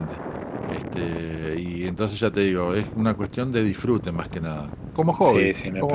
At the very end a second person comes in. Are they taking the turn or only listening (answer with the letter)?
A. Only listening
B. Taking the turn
B